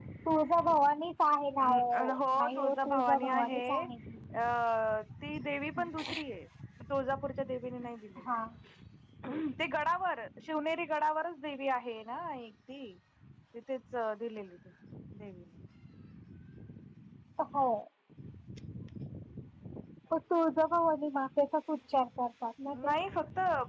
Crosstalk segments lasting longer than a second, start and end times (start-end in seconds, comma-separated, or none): 2.4-3.6